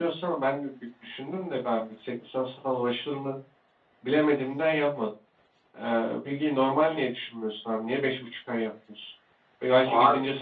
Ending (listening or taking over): listening